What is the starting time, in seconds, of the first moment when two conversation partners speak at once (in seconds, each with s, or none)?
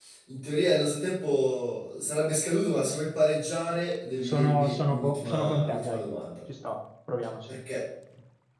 4.2 s